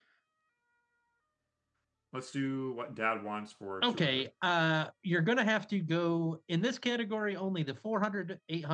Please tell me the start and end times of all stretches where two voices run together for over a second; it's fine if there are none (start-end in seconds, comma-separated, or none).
none